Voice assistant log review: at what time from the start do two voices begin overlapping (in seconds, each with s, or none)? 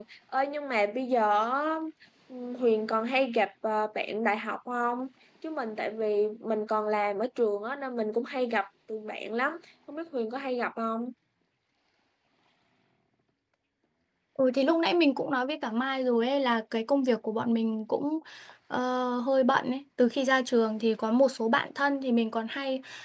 none